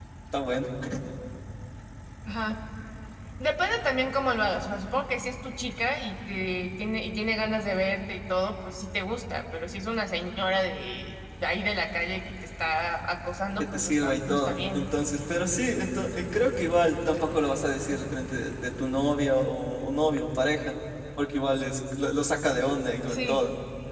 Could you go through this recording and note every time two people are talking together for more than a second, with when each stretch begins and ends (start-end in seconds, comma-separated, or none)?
13.6-14.9